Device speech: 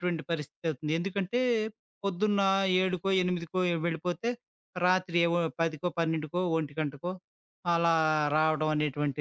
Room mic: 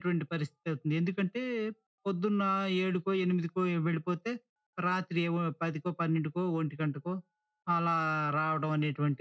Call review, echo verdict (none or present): present